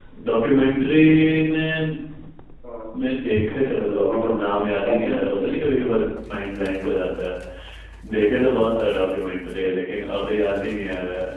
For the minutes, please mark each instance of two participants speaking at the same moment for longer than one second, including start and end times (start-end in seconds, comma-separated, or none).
3.9-5.4